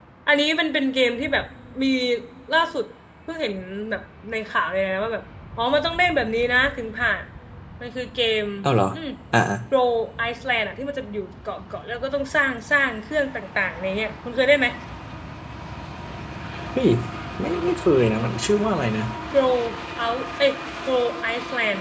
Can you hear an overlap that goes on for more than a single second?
No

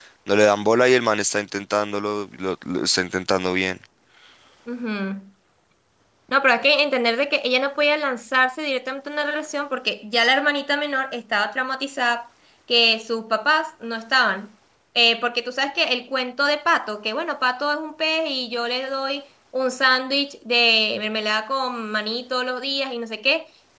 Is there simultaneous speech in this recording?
No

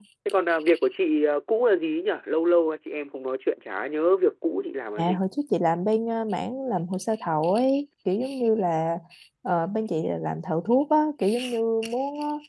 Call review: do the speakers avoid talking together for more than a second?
Yes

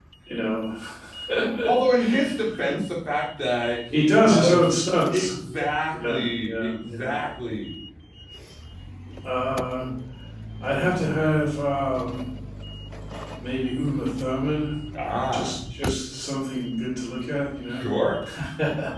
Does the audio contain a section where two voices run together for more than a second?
Yes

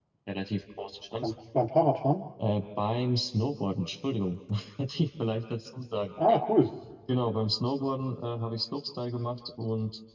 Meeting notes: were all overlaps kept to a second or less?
Yes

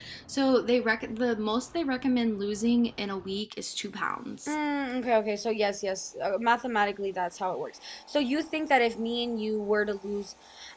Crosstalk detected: No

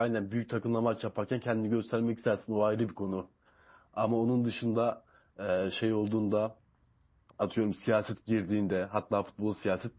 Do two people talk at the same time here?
No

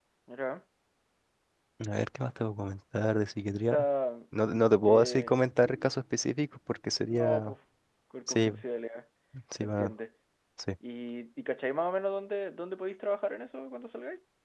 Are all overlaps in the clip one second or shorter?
Yes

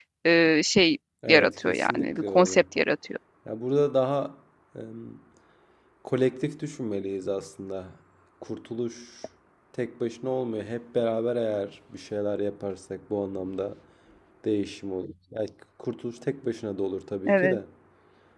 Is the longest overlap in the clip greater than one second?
Yes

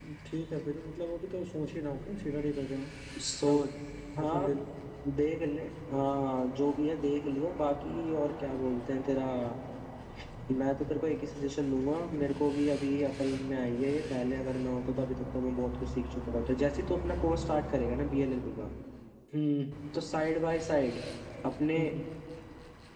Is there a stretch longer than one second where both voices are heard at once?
No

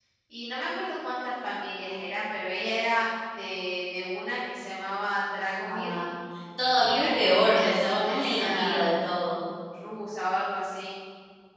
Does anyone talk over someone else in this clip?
Yes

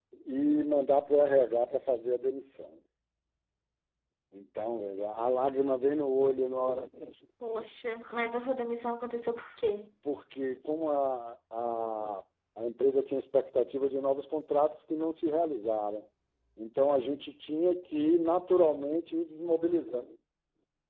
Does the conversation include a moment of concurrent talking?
No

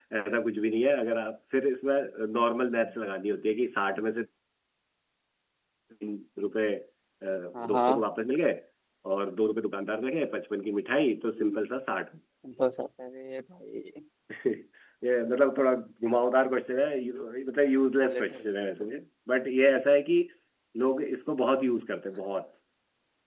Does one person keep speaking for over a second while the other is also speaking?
No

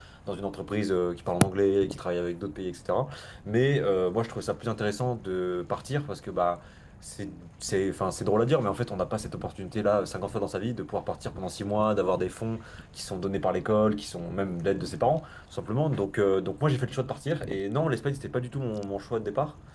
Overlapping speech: No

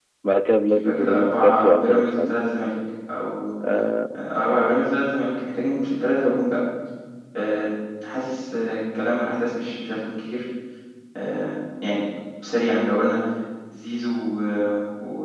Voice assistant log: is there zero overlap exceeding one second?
No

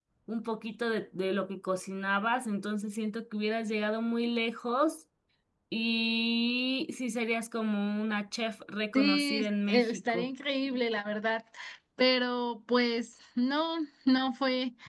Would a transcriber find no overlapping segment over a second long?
No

